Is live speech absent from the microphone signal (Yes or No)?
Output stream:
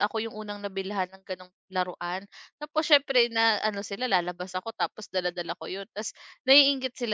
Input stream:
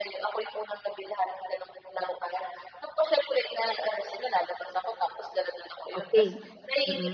No